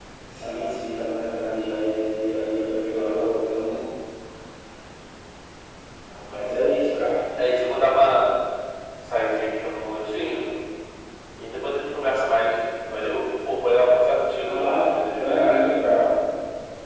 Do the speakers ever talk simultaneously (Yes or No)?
Yes